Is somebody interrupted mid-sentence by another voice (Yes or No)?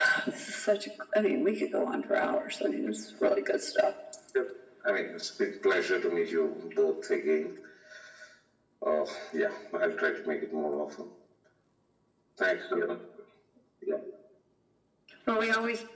No